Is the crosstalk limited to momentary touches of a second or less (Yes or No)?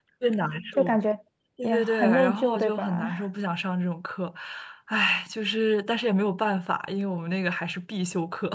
No